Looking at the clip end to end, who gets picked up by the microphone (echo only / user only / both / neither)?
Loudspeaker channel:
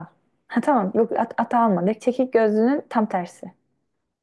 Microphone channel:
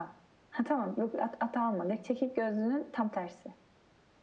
echo only